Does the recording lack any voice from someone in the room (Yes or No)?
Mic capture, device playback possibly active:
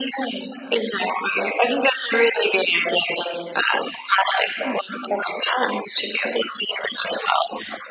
Yes